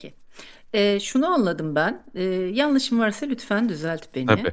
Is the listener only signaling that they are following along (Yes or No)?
Yes